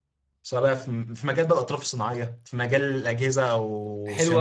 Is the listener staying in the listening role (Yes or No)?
No